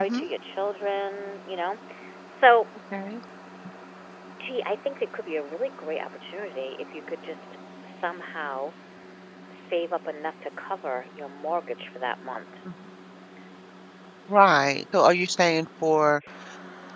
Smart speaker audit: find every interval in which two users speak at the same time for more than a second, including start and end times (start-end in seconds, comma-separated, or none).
none